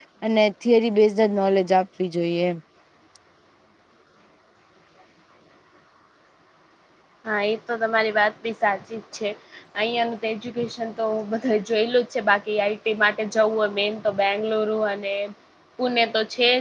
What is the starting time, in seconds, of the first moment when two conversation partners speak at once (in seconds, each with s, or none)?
none